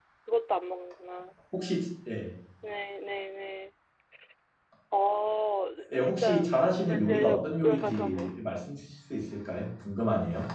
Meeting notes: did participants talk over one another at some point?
Yes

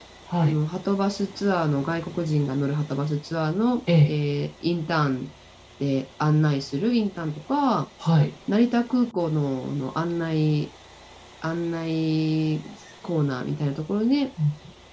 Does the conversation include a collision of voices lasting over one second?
No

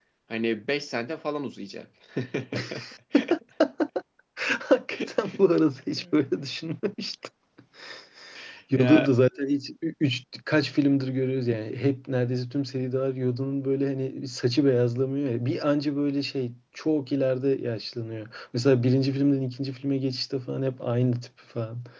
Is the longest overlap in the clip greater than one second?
No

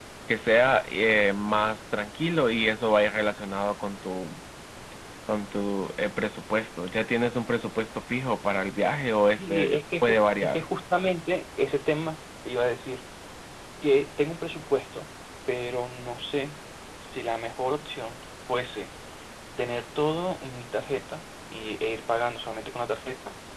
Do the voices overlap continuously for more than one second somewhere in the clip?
Yes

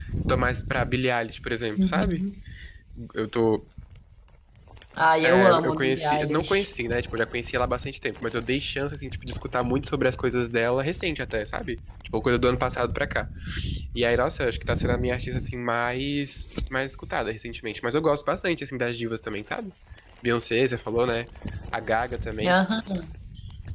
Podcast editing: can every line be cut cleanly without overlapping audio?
No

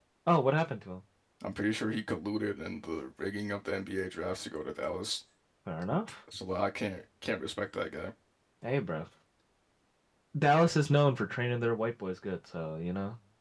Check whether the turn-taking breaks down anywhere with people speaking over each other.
No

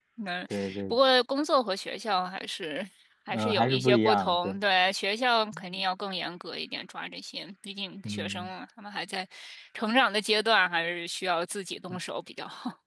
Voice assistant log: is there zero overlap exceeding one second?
No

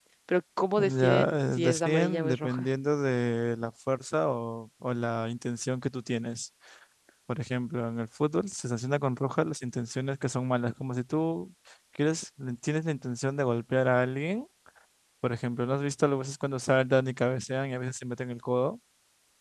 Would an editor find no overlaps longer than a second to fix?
No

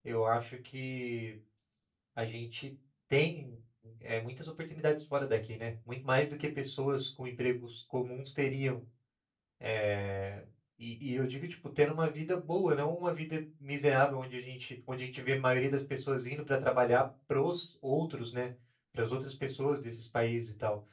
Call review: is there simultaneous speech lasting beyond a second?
No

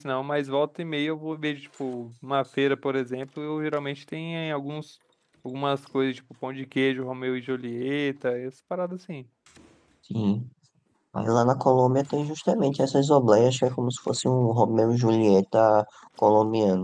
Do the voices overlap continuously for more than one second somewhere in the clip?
No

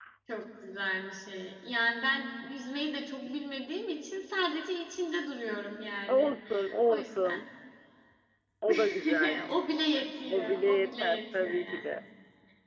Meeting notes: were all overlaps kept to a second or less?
No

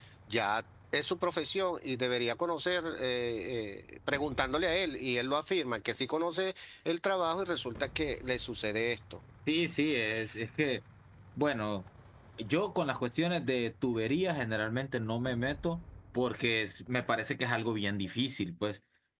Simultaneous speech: No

